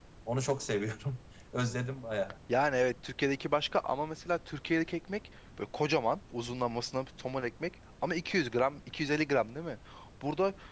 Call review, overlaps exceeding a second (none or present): none